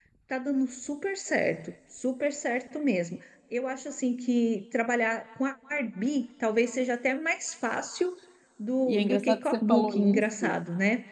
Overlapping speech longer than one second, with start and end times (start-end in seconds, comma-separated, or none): 8.9-10.6